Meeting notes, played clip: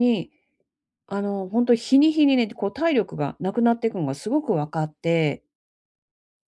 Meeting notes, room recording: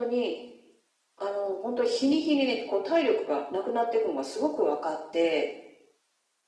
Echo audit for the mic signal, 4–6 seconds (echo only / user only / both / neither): echo only